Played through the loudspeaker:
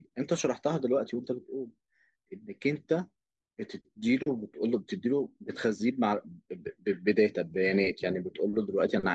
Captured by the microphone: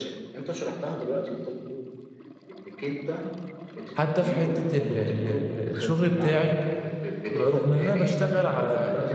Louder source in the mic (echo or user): user